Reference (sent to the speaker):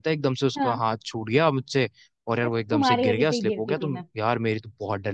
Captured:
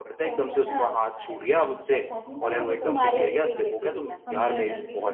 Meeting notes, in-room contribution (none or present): present